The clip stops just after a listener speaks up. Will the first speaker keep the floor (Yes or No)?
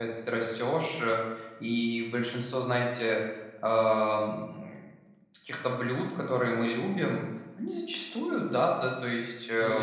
Yes